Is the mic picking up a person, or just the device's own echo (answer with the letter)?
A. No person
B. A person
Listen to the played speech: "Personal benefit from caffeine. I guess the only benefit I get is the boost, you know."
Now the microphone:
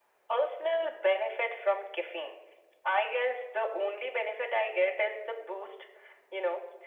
A